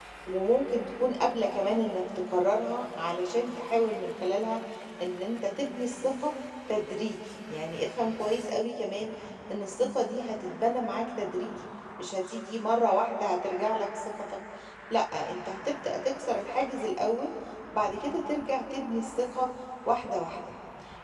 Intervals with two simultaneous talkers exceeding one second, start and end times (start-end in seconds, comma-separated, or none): none